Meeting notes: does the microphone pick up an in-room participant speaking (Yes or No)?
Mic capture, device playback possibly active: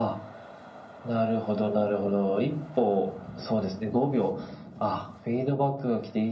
No